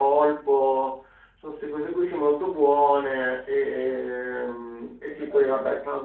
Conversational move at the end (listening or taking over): listening